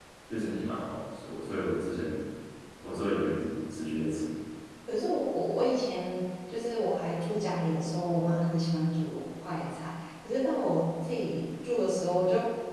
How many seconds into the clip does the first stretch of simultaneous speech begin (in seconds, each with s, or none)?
none